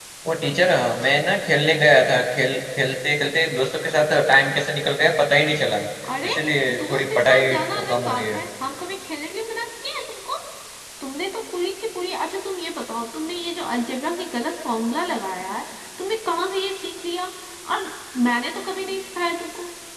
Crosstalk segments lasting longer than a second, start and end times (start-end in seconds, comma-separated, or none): 6.8-8.4